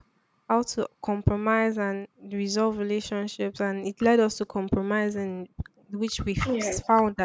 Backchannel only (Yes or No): Yes